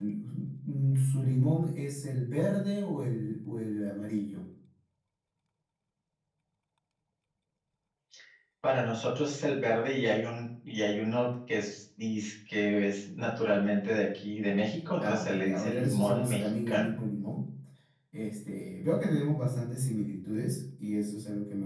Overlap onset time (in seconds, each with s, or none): 15.0 s